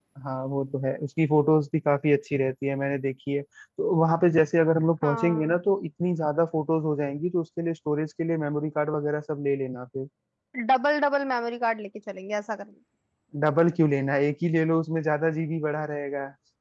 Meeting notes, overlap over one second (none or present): none